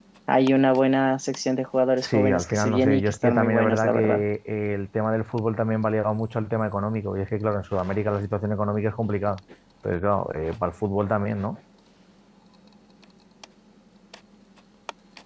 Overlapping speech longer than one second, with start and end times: 2.0-4.2

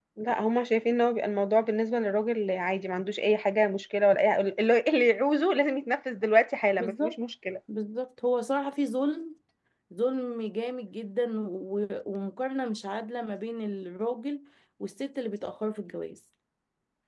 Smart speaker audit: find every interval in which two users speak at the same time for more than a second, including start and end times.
none

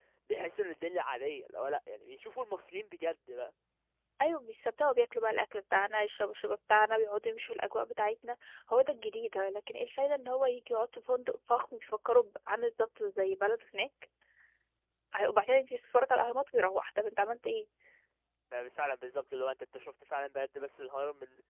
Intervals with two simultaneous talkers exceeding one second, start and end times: none

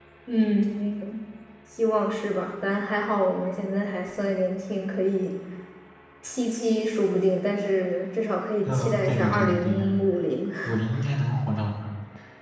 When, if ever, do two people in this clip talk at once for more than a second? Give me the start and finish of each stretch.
8.7-9.9

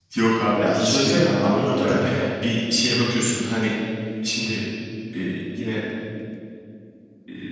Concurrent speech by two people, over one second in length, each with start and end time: 0.6-2.0

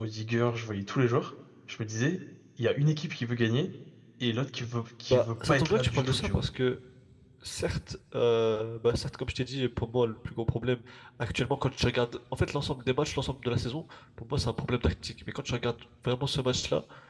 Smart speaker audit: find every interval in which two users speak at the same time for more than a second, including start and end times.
5.1-6.4

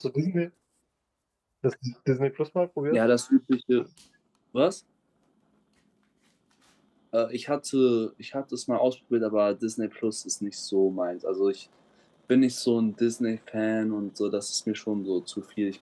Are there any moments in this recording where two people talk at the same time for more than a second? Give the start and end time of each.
none

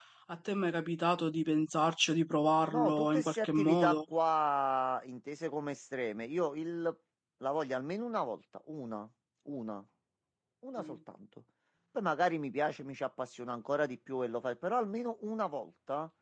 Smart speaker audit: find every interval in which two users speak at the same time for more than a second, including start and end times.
2.7-4.0

